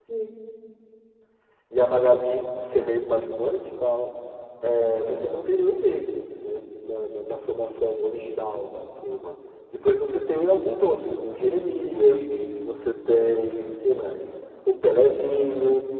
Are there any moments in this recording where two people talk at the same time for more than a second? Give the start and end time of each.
none

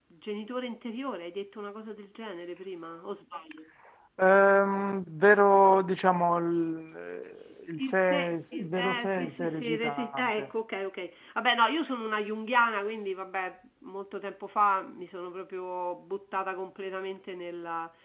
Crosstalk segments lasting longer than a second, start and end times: 7.8-10.5

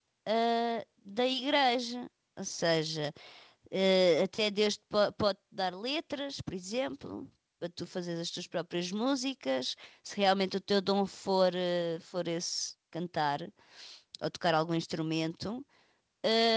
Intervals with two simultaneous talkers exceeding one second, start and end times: none

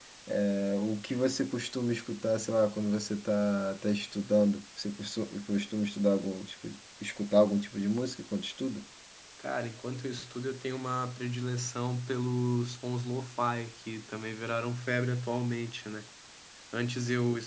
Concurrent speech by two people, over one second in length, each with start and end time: none

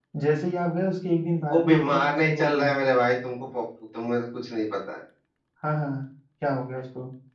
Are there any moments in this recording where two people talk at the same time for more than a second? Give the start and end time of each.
1.5-2.7

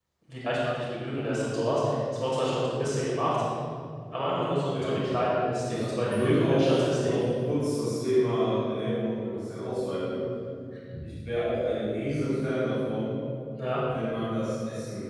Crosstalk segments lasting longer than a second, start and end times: 5.7-7.2

